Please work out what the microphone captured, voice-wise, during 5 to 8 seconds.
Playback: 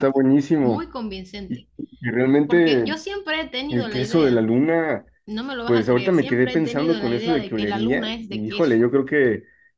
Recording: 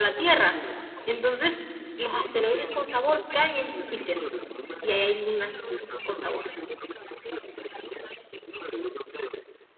both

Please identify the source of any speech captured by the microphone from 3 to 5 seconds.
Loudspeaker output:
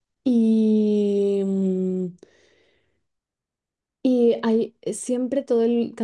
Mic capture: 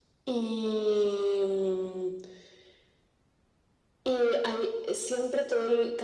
echo only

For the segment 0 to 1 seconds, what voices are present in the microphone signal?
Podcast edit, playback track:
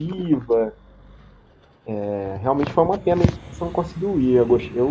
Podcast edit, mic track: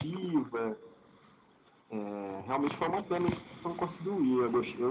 echo only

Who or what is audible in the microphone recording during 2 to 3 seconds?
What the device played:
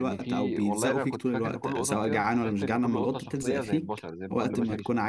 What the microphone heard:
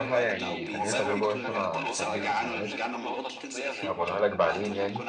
both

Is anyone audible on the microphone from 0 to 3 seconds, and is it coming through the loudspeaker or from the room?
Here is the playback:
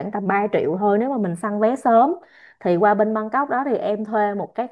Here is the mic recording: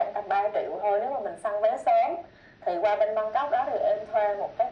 echo only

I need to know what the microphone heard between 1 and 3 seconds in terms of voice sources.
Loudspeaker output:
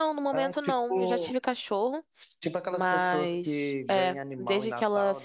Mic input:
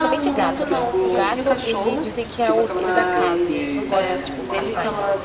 both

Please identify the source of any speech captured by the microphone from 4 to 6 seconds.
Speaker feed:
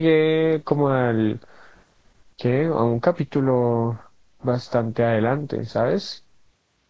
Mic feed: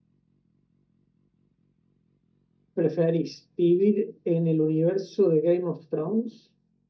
user only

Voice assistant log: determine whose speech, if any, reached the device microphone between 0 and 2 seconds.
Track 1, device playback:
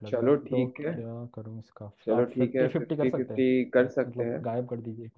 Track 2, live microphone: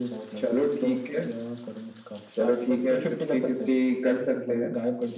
echo only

